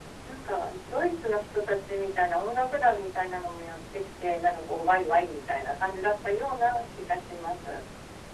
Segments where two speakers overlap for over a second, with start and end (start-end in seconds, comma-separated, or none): none